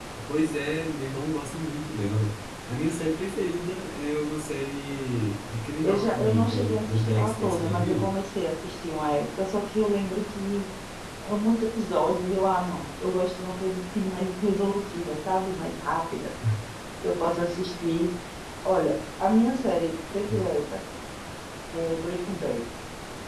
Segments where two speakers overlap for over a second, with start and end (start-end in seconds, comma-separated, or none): 5.8-8.1